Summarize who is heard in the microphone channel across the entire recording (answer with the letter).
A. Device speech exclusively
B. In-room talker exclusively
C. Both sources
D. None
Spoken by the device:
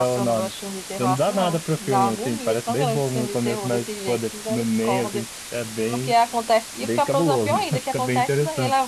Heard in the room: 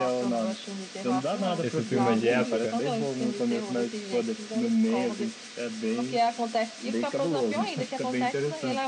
C